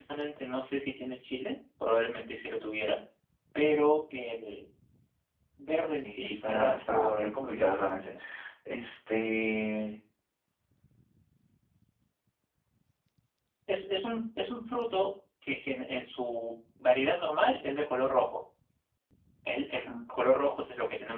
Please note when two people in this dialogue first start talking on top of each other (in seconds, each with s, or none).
6.0 s